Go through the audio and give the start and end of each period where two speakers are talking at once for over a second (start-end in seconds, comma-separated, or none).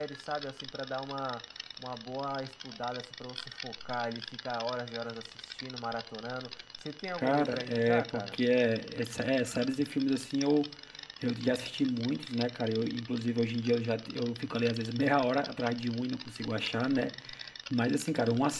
7.2-8.4